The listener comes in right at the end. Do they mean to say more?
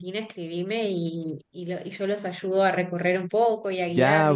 Yes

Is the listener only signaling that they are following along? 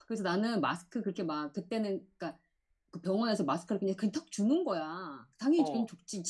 Yes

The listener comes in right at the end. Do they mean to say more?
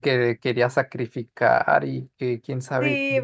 Yes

